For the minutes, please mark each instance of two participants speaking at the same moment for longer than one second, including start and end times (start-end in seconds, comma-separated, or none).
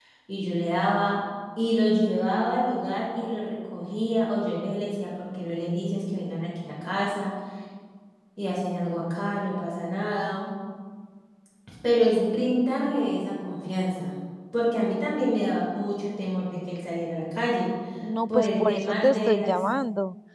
18.3-19.6